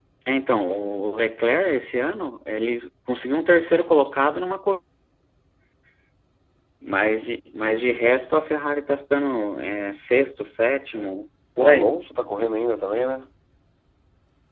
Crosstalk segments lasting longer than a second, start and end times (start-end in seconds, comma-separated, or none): none